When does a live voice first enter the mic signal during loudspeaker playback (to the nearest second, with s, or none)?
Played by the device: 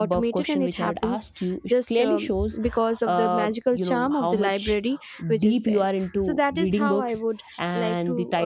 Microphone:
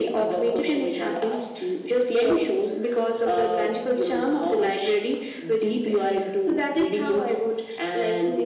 none